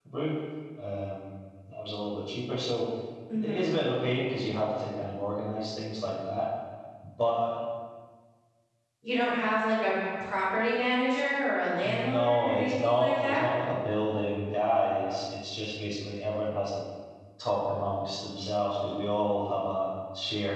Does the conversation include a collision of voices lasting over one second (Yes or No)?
Yes